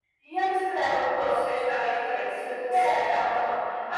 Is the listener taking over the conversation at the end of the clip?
No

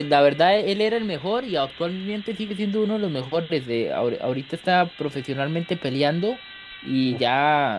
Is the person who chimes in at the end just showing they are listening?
Yes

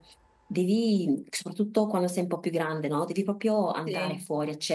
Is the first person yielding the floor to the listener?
No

